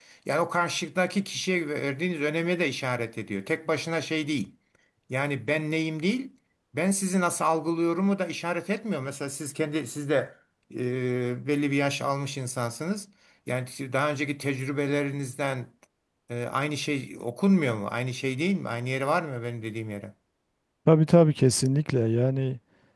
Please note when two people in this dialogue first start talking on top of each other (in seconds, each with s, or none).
none